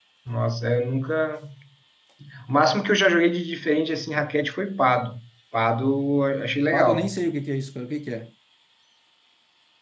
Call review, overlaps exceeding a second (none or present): none